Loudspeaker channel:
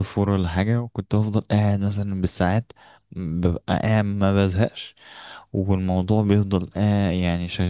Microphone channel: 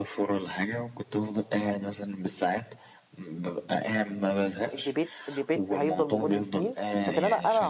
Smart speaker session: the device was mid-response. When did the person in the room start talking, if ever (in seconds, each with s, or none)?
4.7 s